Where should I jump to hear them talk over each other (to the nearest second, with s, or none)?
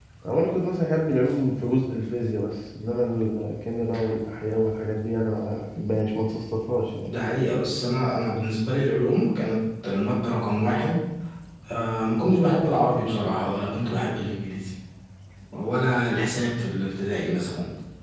none